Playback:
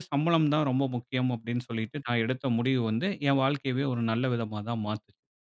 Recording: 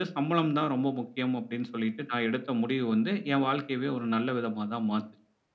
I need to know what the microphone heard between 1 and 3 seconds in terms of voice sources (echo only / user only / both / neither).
echo only